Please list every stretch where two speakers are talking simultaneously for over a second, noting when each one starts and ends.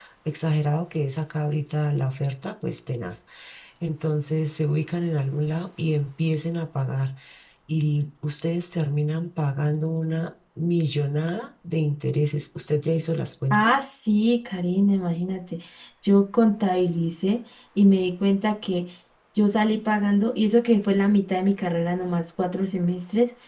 none

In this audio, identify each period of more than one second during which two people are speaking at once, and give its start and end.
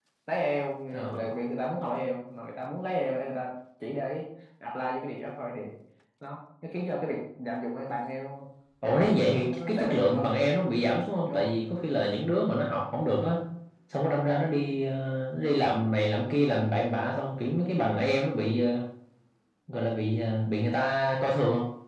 8.8-10.3

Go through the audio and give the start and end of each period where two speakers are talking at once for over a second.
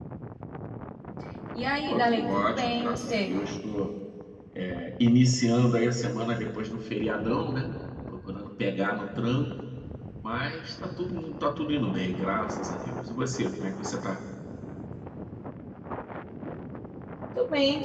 1.9-3.3

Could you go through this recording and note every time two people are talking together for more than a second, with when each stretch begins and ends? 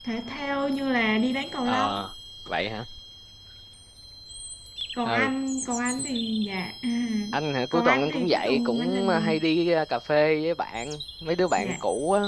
7.7-9.4

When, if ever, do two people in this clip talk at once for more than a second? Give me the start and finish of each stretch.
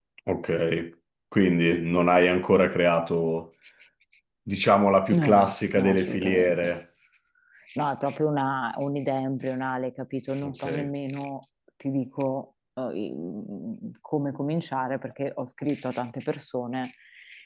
5.1-6.7

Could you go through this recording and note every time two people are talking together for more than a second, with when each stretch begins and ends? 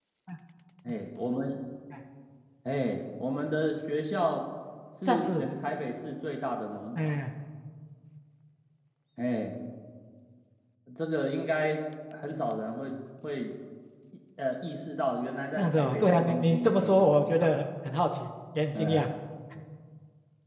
15.6-17.5

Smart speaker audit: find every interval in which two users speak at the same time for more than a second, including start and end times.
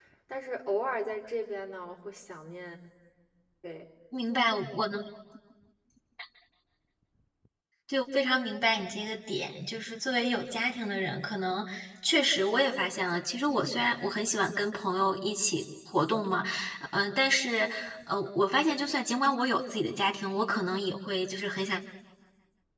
none

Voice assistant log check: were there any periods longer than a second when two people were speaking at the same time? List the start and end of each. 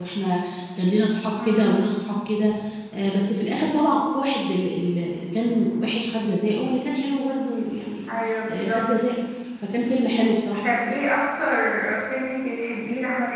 none

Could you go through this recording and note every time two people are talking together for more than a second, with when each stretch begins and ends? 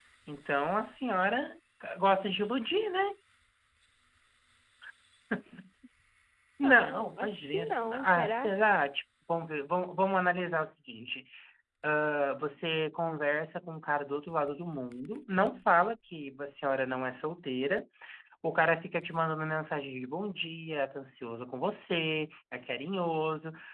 6.6-8.5

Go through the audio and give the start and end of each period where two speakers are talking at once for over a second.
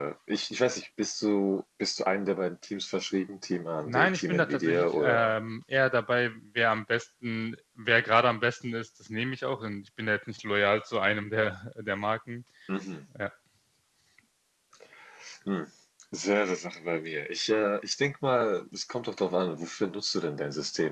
3.8-5.3

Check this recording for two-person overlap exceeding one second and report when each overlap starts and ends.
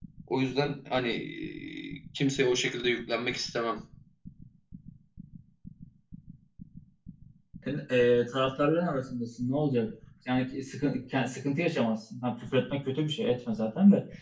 none

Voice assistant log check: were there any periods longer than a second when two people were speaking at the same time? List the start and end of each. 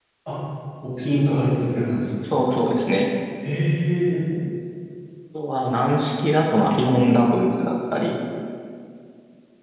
none

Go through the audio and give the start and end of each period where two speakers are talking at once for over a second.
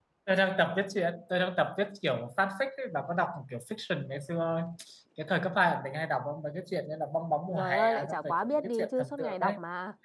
7.5-9.6

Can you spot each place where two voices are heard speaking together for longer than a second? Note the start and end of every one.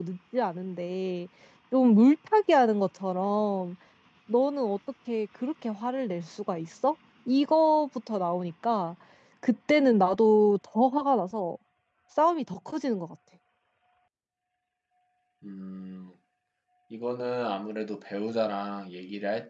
none

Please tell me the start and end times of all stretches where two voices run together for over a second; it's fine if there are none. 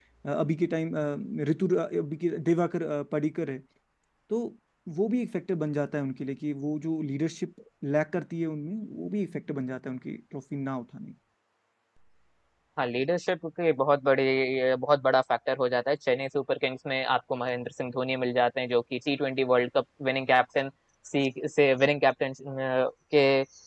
none

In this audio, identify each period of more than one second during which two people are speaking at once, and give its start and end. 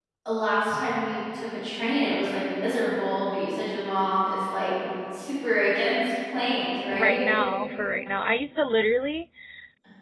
none

